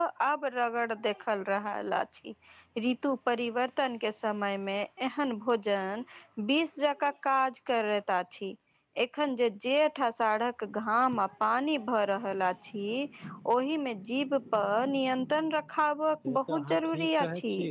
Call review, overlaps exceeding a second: present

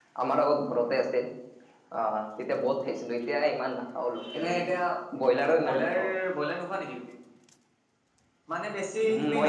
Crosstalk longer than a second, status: none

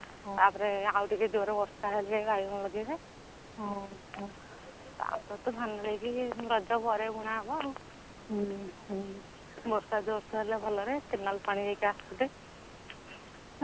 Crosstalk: none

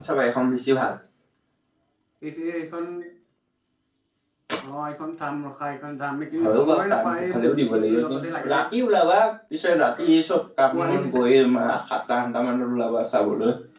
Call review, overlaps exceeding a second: present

